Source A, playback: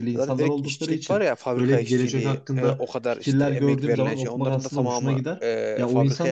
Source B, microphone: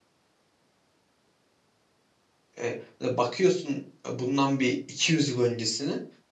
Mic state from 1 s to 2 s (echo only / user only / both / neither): neither